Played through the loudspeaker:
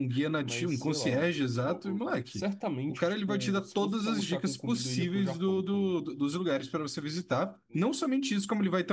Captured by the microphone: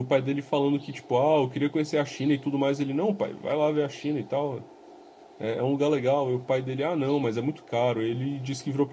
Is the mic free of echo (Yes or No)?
Yes